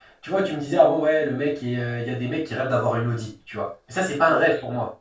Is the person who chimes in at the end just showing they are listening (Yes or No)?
Yes